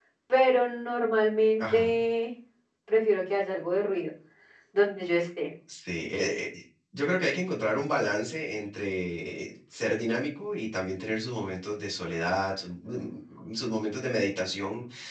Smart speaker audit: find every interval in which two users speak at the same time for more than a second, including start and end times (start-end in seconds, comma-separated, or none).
none